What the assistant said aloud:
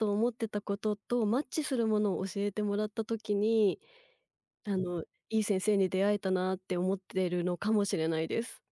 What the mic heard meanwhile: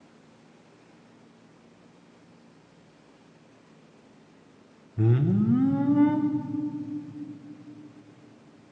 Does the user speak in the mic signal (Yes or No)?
Yes